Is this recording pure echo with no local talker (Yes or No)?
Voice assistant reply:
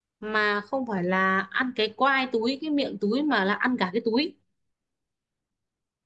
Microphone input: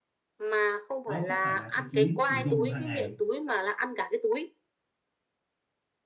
No